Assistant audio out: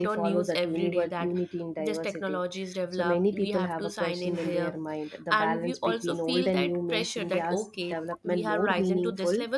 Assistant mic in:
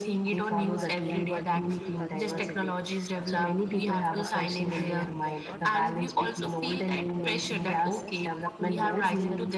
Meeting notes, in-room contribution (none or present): present